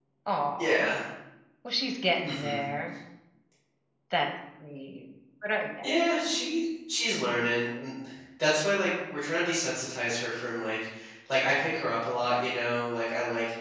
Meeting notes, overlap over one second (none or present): none